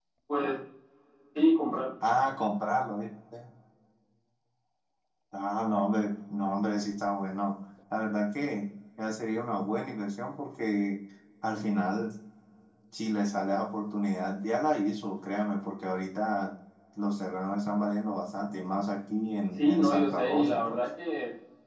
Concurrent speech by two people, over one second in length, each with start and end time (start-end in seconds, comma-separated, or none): 19.6-20.8